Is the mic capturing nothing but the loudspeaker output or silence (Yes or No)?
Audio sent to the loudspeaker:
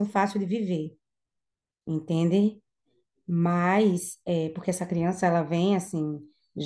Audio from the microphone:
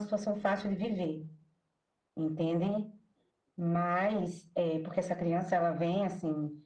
Yes